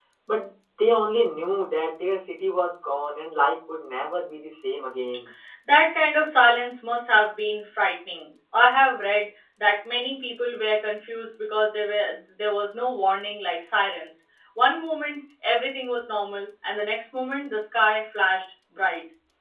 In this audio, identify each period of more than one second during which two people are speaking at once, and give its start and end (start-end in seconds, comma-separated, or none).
none